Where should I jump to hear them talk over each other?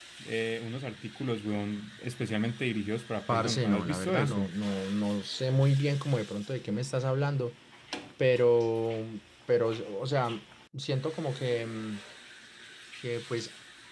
3.3 s

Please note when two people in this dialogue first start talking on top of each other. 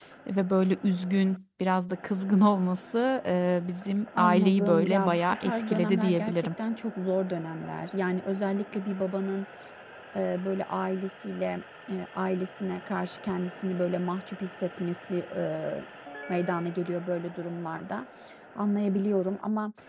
4.2 s

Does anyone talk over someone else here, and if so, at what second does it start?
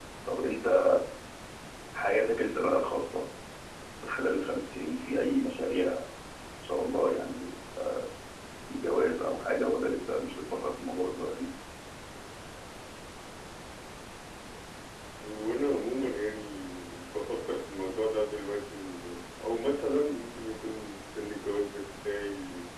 none

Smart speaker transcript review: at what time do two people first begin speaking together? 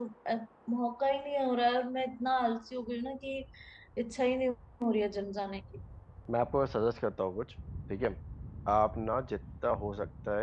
none

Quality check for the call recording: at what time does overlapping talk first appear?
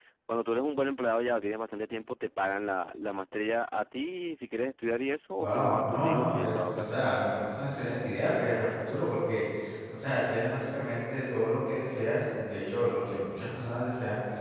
5.4 s

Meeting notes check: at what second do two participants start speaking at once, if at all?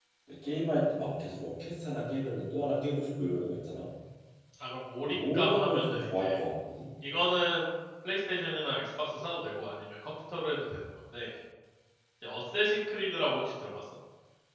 5.1 s

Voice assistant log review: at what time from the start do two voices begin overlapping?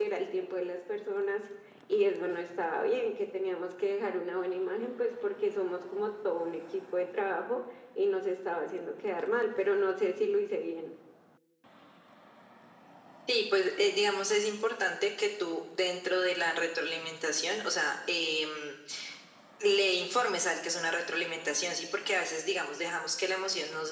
none

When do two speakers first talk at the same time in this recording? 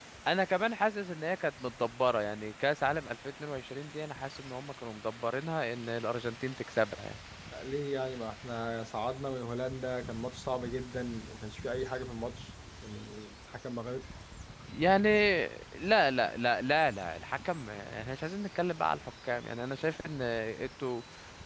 none

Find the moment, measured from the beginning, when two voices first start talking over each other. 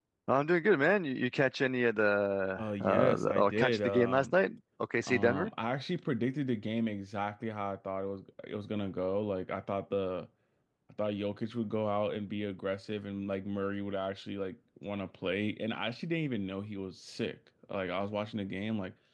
2.6 s

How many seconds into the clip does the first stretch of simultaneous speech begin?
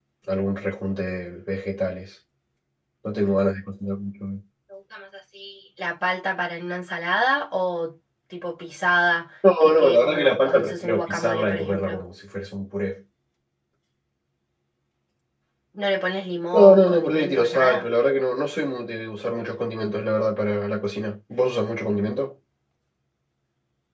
9.6 s

